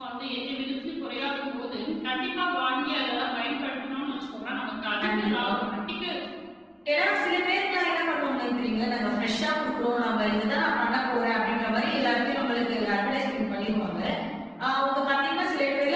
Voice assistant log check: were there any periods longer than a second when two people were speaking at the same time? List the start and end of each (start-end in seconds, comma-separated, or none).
none